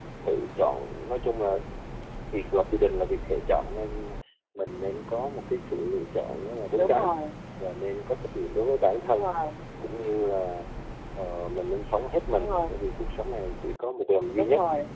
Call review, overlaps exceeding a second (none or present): none